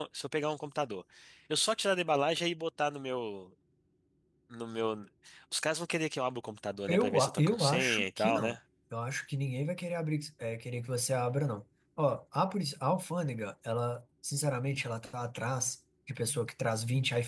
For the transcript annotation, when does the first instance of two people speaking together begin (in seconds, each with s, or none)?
6.9 s